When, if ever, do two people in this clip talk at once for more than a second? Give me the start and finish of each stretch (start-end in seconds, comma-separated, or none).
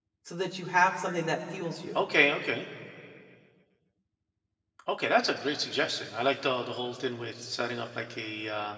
none